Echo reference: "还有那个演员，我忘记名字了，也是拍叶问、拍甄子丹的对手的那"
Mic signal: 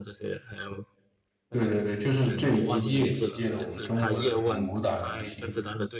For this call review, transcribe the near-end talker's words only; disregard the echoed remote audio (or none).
对对对，就是这一届一届的我们中国的这种武打明星